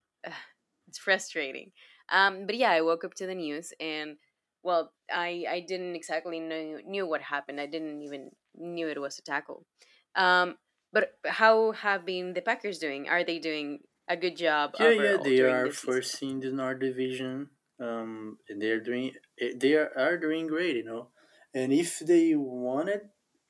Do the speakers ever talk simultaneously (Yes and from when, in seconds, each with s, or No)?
Yes, from 14.8 s